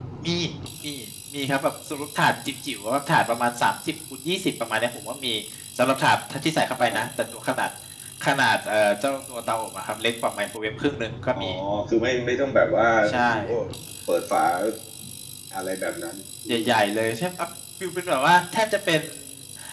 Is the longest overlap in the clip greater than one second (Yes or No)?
No